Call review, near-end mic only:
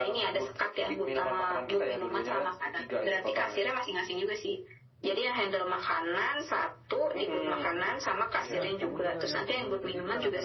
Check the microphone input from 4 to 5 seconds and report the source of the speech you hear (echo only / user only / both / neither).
echo only